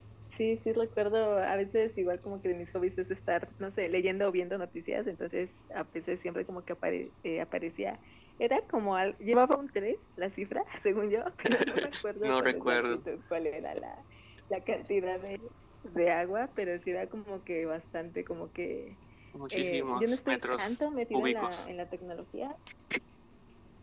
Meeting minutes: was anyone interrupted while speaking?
Yes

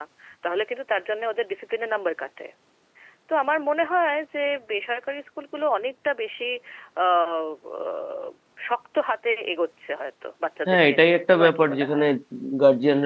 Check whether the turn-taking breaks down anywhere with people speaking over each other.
Yes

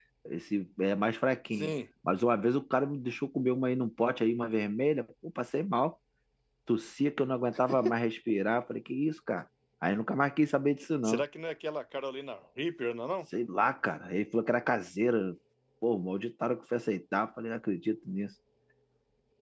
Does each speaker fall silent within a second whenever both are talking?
Yes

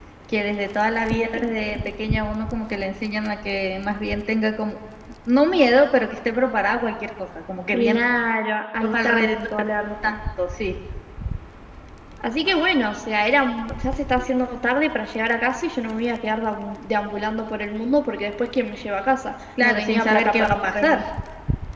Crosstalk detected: Yes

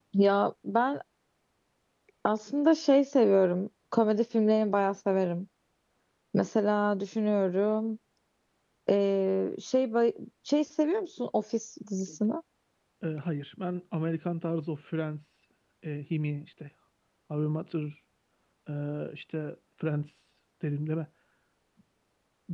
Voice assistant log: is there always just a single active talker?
Yes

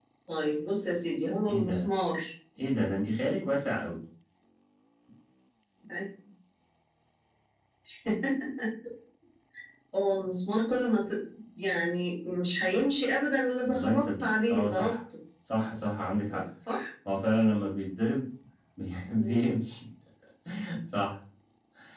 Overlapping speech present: Yes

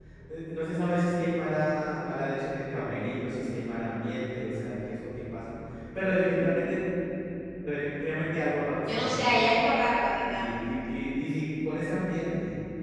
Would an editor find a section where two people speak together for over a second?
No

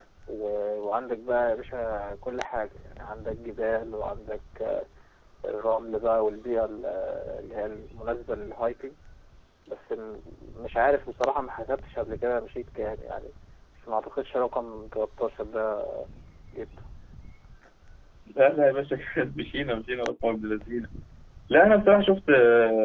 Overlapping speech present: No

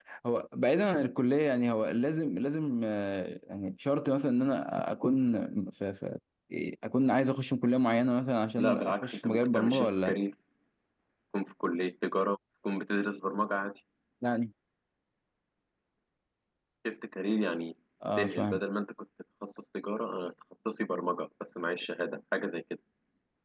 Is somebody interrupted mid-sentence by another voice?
Yes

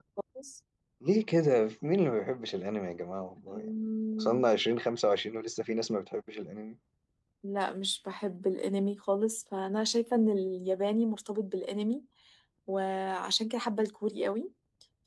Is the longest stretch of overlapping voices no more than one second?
Yes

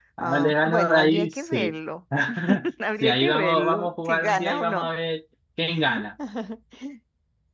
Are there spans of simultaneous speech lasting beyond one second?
Yes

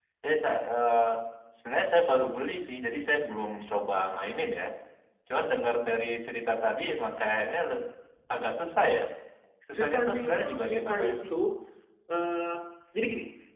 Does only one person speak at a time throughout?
No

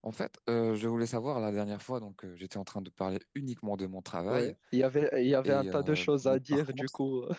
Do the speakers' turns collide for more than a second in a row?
Yes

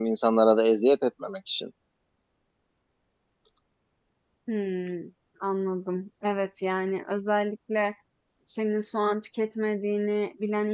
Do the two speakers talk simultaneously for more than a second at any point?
No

